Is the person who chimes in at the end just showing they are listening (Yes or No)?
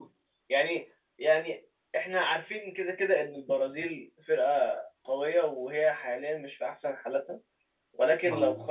Yes